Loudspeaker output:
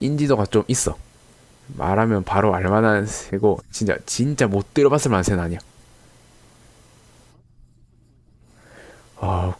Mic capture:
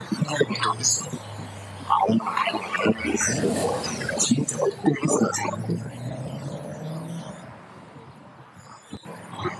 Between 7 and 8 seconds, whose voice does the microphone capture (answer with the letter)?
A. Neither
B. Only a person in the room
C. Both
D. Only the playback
A